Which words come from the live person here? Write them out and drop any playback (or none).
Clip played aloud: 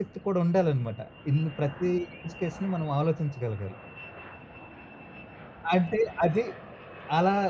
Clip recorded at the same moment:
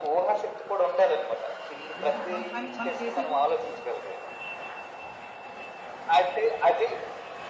ఎందుకంటే మన పని మనం చేసే